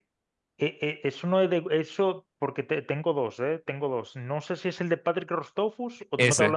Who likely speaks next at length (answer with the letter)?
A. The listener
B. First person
B